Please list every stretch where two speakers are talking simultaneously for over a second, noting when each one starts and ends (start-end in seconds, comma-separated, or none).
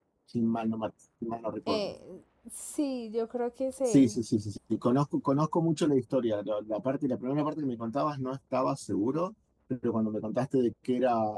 none